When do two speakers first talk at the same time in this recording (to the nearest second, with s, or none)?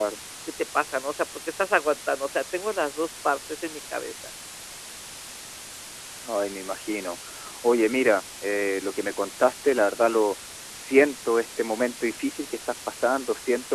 none